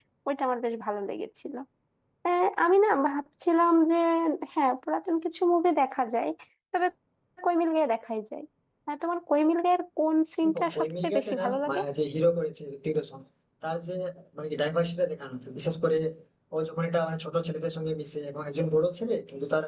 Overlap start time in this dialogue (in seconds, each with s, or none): 10.4 s